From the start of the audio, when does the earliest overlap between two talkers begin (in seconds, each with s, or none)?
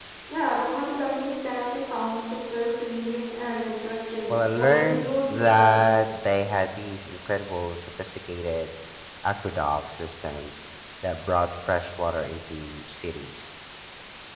4.3 s